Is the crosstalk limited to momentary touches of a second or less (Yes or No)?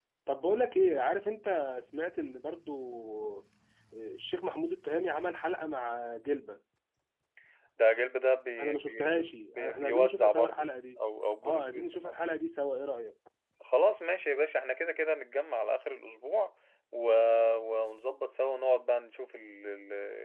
No